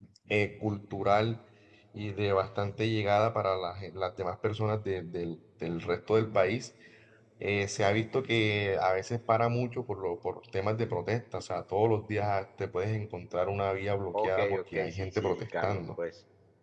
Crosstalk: present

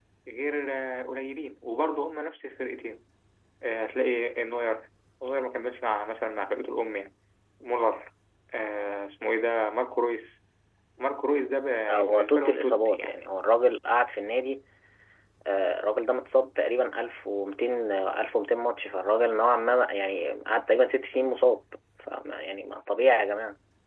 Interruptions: present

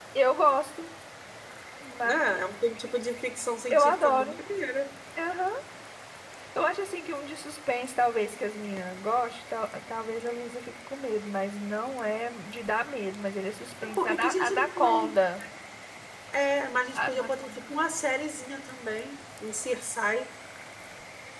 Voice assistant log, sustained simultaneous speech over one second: present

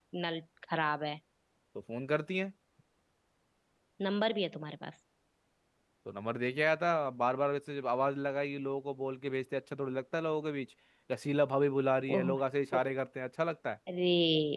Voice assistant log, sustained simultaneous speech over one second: none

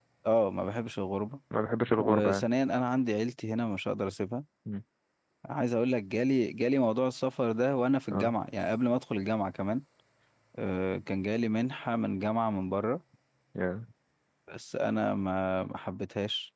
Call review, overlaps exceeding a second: none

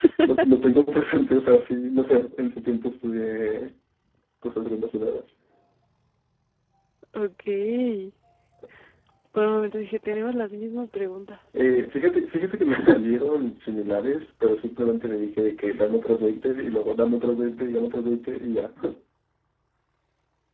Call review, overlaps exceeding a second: none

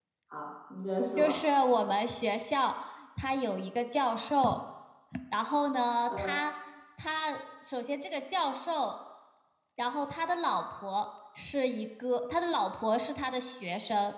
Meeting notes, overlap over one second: none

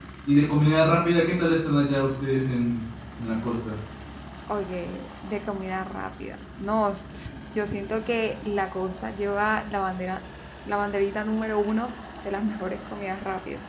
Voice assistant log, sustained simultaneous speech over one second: none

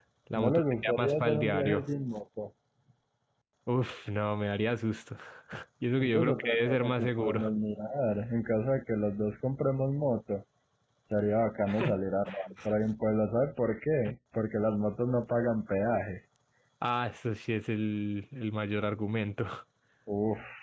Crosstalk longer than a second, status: present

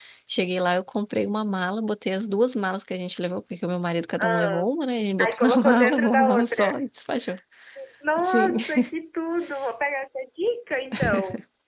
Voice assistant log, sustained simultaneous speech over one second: present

